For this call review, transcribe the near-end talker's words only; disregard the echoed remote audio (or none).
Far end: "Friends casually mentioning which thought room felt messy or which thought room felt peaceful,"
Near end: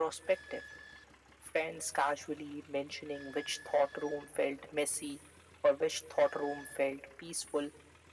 none